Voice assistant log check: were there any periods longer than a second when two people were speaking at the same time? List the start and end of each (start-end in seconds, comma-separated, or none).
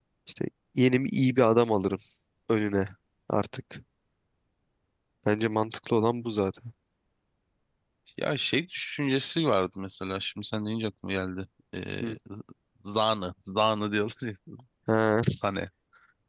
none